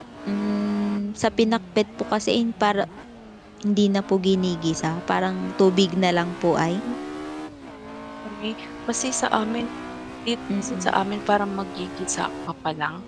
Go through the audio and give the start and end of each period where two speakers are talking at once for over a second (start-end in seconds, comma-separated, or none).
none